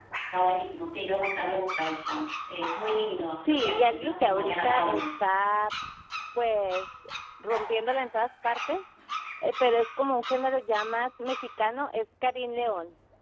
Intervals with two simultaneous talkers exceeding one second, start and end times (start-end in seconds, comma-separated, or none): 3.5-5.0